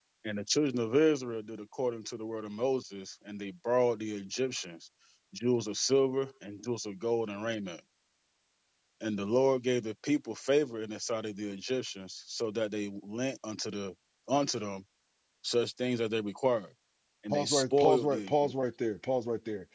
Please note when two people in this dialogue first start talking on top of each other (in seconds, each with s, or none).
17.3 s